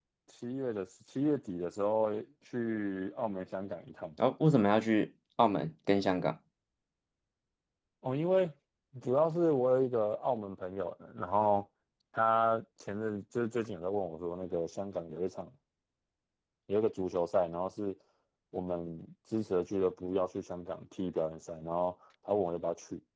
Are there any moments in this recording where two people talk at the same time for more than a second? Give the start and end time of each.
none

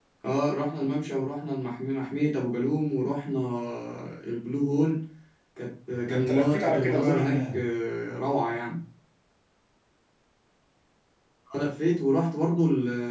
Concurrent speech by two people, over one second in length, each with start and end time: 6.1-7.6

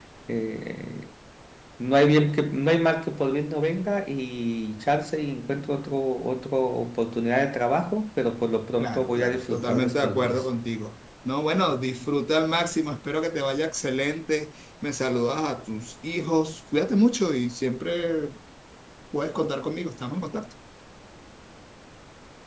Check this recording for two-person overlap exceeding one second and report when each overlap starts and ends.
8.8-10.4

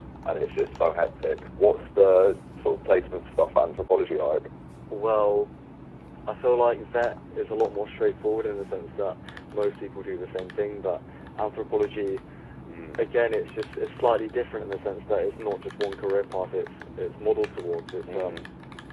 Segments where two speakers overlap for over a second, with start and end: none

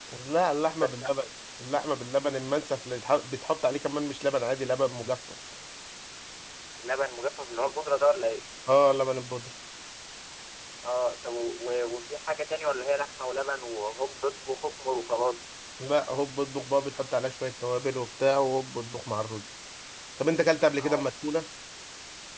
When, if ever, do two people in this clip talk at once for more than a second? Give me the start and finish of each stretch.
none

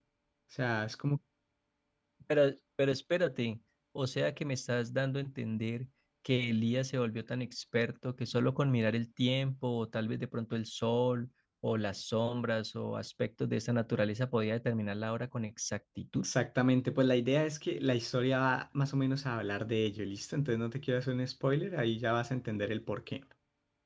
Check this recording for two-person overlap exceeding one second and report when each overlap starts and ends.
none

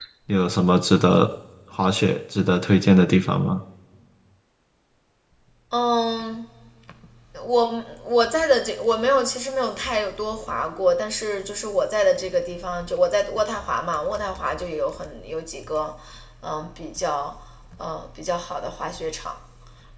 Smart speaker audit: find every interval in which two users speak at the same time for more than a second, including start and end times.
none

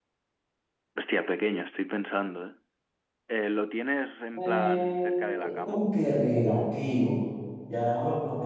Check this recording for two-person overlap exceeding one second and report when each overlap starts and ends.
4.4-5.8

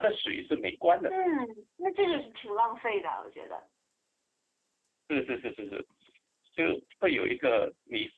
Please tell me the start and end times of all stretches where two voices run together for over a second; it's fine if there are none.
none

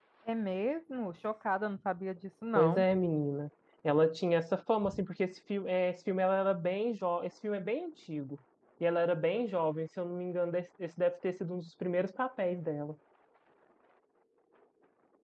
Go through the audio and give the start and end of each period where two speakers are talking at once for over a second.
none

